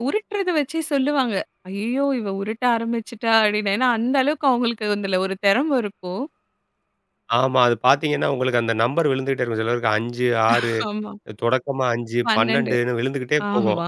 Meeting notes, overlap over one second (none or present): none